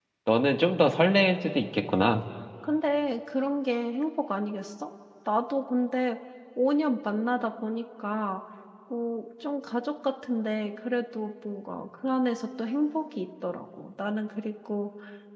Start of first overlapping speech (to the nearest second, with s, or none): none